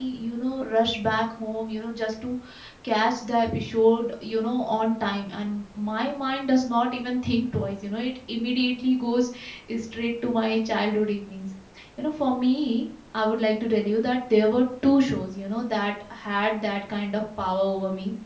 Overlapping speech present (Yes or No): No